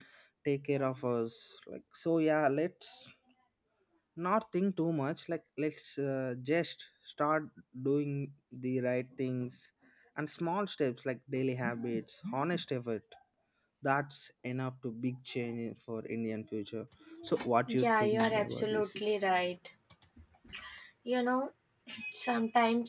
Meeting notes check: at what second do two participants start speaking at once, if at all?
17.7 s

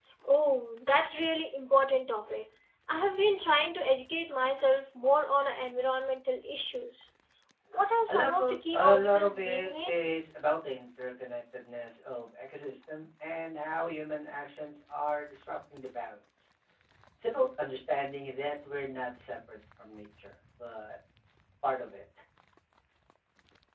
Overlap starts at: 8.1 s

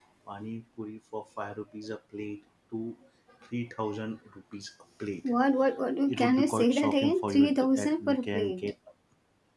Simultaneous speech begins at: 6.1 s

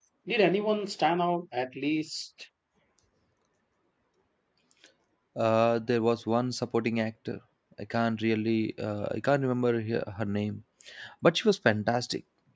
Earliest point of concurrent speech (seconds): none

